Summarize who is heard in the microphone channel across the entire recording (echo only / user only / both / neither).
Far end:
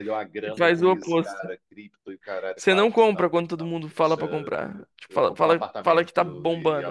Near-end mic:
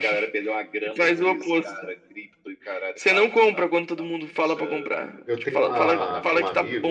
both